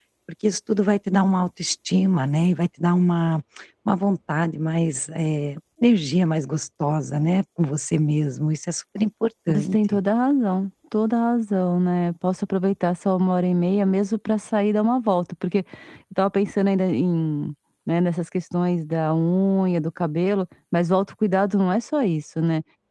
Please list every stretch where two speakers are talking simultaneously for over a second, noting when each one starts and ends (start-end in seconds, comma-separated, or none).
none